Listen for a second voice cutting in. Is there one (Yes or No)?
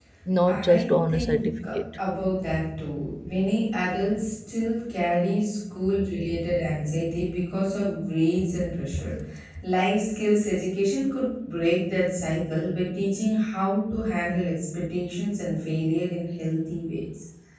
Yes